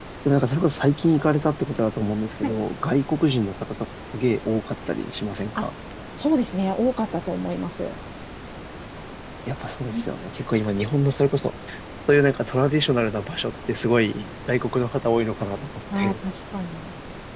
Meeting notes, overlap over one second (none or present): none